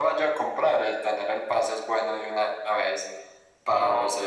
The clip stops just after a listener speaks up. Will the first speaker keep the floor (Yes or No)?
Yes